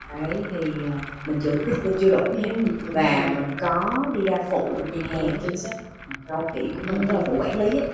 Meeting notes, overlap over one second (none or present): none